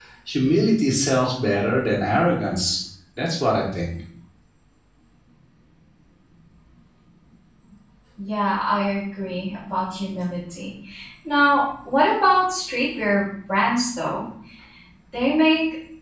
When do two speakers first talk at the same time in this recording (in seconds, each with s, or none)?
none